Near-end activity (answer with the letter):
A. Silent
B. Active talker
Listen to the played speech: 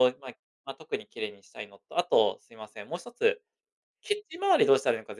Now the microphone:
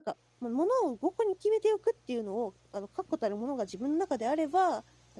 B